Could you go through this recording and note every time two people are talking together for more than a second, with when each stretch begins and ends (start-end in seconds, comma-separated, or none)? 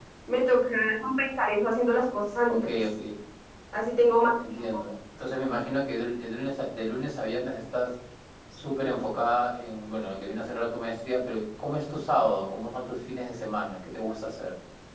none